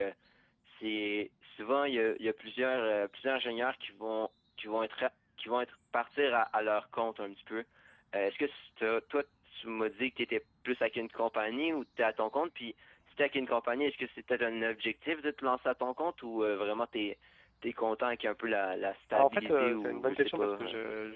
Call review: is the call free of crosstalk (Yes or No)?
No